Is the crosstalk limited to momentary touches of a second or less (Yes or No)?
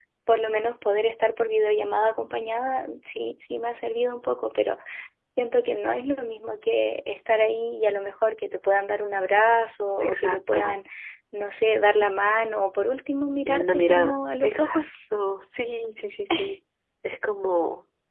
No